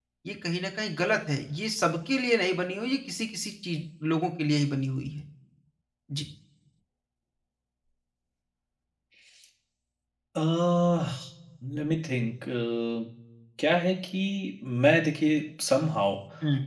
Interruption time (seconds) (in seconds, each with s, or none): none